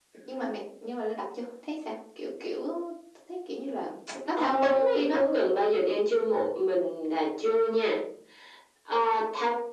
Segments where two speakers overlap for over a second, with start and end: 4.4-5.7

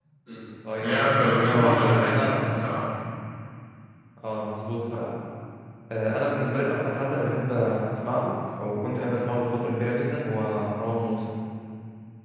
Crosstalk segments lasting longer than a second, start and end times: 0.8-2.6

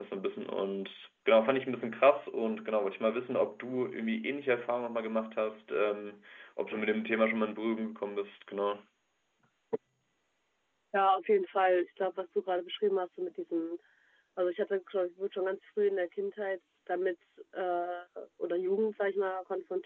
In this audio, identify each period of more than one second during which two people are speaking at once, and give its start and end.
none

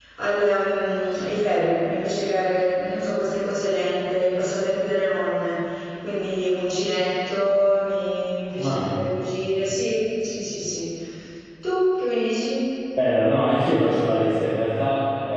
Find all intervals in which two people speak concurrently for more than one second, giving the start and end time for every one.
none

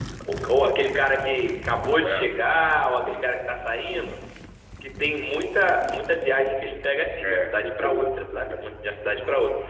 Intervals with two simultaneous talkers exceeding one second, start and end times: 7.2-8.7

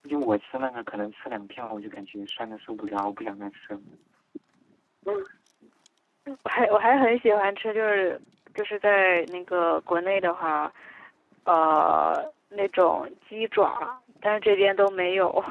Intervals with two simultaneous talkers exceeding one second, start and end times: none

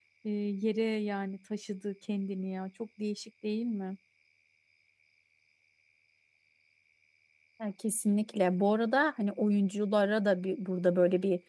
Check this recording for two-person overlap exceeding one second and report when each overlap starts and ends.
none

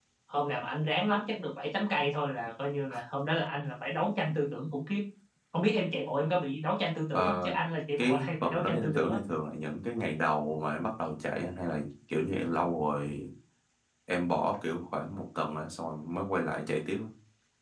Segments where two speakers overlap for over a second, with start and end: 8.0-9.2

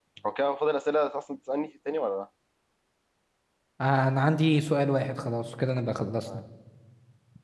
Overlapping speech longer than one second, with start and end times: none

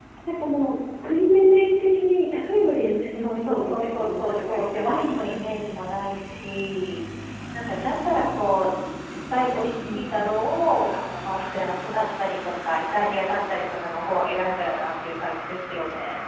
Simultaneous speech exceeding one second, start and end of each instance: 3.1-5.5

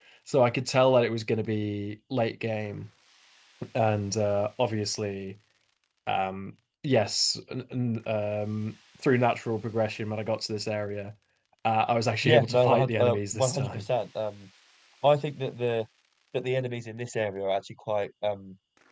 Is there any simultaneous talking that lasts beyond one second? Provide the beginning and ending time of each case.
12.2-13.9

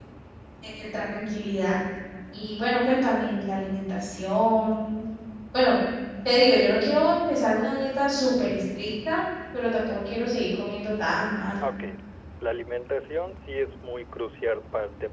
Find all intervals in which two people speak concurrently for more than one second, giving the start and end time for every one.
none

